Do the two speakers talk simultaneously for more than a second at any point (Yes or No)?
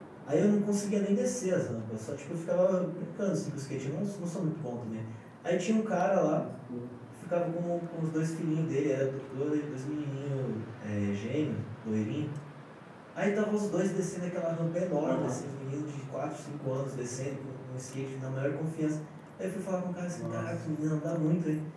No